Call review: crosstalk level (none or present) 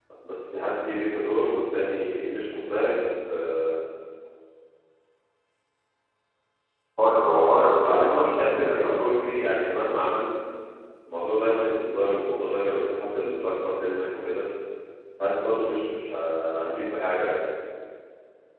present